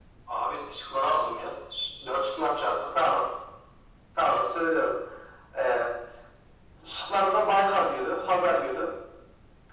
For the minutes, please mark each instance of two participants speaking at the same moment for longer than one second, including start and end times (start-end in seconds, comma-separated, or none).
none